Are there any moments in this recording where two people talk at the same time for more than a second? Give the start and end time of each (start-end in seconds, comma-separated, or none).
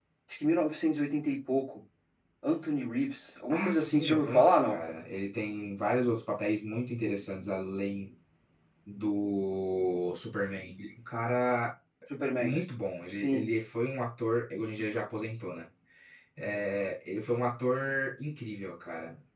3.5-4.8